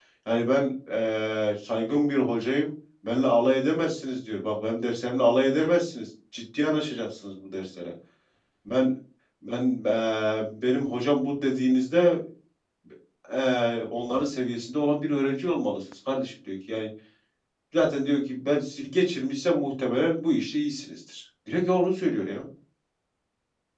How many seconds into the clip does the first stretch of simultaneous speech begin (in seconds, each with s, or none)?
none